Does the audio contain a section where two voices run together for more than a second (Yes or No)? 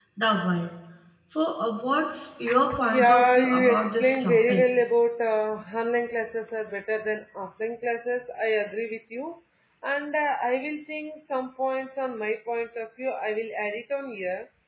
Yes